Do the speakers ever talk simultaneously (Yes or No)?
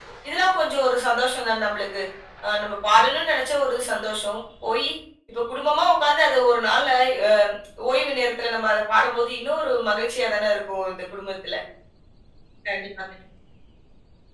No